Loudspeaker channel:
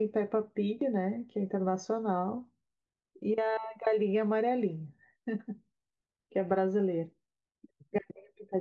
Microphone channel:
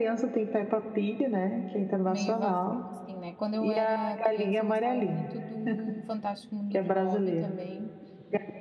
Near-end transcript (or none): meio vazio, assim, né? Quando eu era criança, eu gostava muito do Fantástico Mundo de Bob também,